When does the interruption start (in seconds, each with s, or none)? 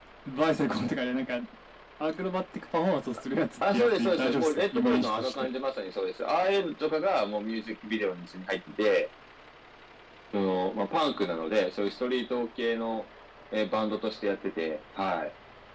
3.6 s